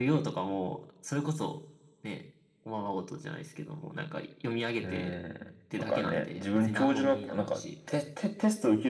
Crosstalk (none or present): present